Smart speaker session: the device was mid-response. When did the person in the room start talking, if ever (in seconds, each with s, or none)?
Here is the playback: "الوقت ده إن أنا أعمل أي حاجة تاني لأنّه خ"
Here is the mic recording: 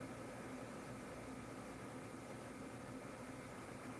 none